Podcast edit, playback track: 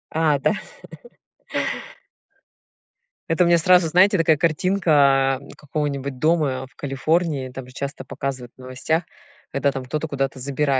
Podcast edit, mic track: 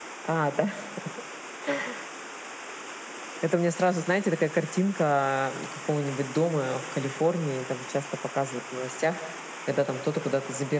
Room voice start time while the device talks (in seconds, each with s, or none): none